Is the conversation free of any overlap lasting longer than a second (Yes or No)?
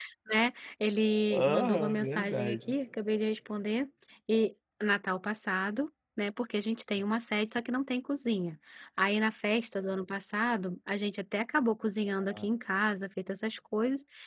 No